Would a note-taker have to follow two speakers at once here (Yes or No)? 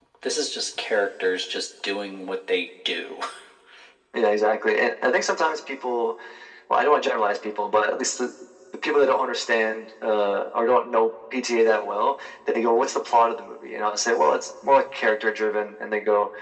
No